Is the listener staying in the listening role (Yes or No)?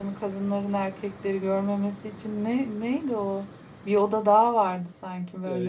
No